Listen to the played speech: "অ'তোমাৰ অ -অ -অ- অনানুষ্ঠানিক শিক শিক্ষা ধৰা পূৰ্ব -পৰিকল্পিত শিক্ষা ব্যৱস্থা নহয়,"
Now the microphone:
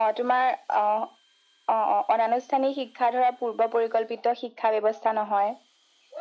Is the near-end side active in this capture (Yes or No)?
No